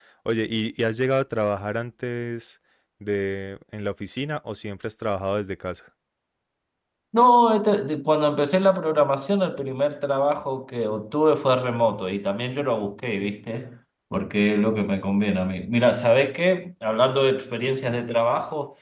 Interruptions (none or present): none